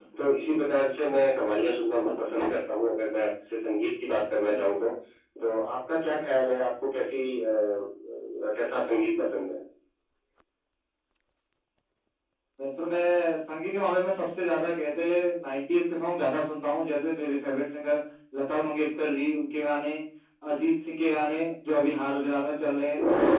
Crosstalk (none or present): none